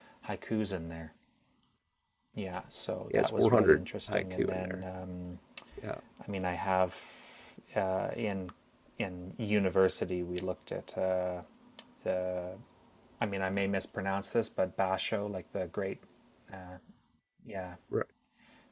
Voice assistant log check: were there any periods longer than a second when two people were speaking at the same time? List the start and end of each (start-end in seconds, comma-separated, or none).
3.1-4.8